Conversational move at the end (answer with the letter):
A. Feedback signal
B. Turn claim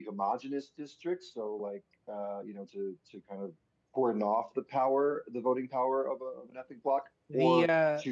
B